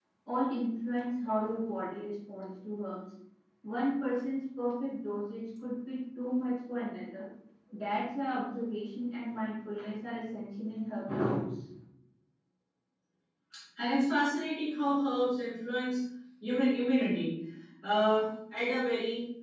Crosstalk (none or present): none